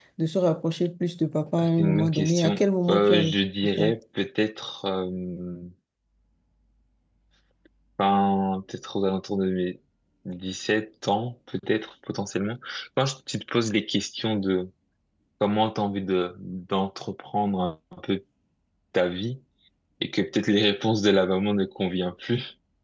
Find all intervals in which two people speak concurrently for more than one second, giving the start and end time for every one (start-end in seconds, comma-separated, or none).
1.6-3.4